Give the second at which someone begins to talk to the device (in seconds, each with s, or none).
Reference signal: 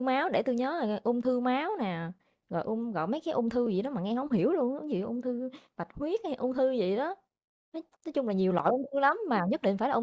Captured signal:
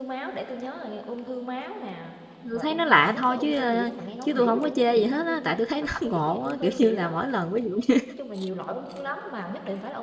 2.5 s